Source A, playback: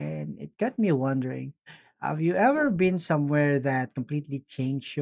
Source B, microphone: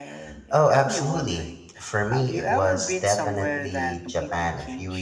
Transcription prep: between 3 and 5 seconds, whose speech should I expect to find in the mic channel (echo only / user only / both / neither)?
both